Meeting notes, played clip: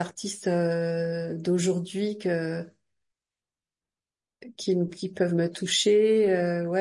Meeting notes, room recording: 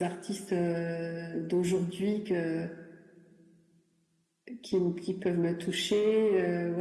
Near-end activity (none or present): none